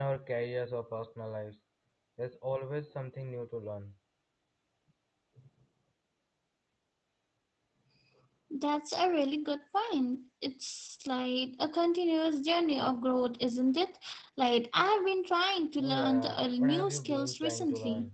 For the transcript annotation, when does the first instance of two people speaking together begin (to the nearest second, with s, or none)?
16 s